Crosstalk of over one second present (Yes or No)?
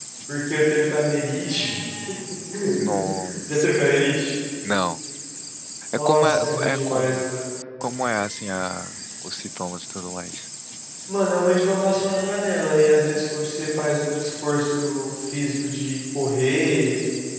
Yes